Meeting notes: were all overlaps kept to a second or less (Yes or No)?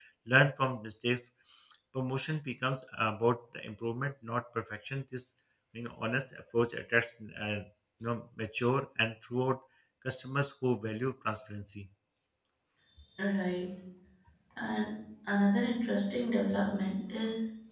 Yes